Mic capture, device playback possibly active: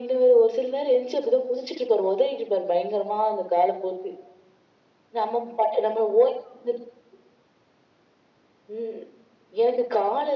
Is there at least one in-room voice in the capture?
No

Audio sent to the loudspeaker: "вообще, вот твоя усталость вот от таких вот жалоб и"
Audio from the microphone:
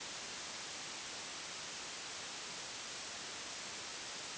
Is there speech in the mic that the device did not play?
No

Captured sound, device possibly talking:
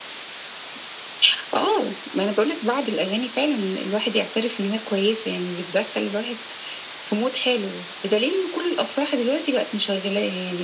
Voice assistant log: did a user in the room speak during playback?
No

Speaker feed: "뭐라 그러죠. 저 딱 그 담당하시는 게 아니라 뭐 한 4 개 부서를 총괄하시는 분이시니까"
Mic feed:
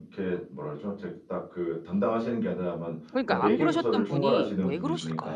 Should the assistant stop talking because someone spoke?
Yes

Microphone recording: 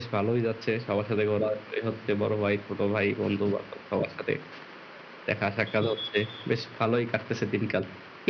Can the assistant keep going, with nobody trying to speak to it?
Yes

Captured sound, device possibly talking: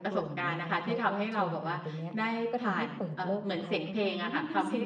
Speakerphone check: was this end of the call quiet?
No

